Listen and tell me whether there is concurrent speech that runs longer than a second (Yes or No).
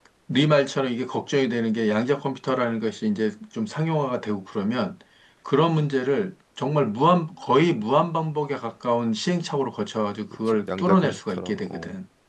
Yes